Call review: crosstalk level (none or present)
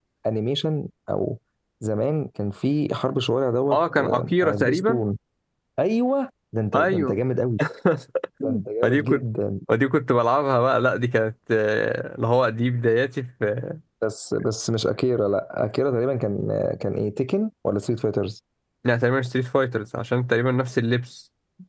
present